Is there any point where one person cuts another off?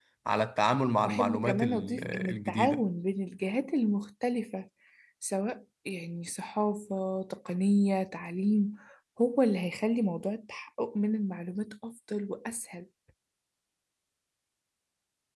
Yes, from 1.1 s

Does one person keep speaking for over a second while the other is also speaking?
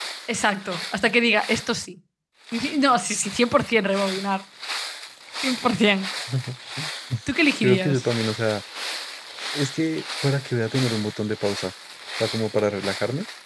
No

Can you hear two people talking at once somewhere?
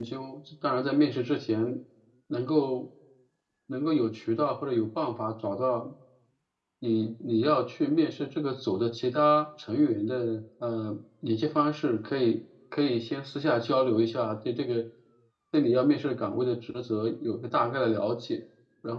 No

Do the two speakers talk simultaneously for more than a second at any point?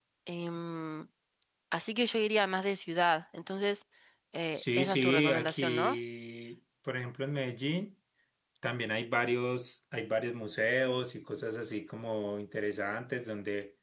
Yes, from 4.5 s

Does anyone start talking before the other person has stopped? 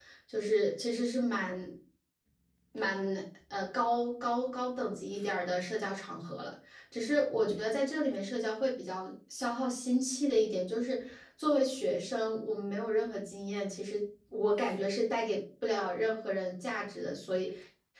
No

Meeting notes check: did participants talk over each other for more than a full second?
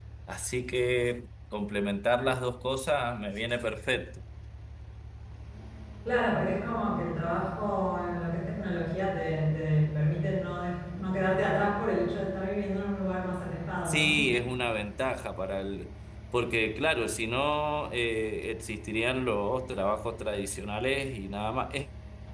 No

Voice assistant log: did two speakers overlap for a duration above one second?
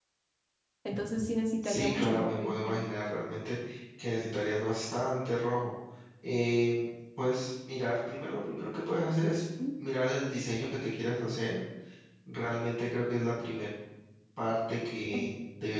Yes, from 1.6 s

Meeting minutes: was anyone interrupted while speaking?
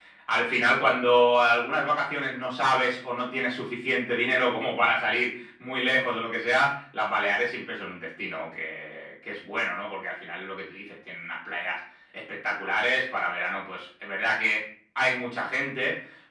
No

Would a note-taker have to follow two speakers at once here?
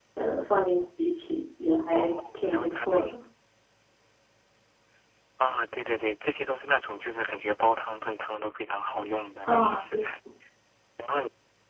Yes, from 1.9 s

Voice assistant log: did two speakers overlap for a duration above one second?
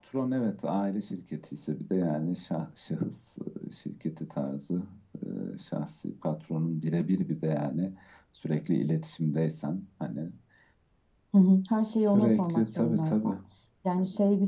Yes, from 11.9 s

